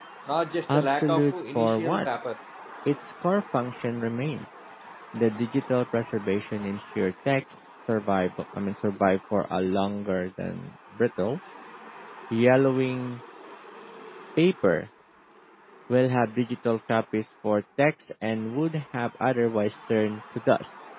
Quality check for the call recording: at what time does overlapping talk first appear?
0.7 s

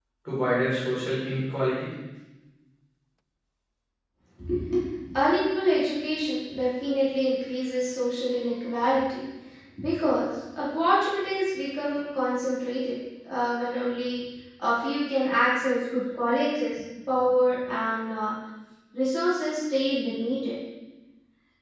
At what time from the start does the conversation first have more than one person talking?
none

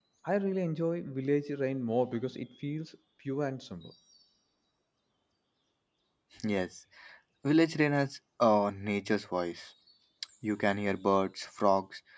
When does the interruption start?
none

